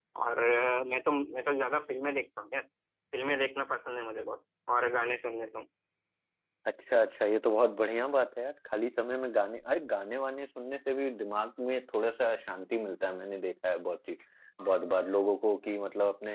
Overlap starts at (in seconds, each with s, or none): none